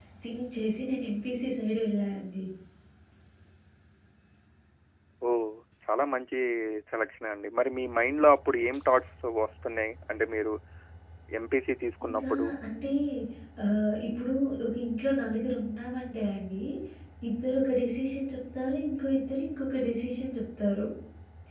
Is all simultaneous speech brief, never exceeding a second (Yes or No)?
Yes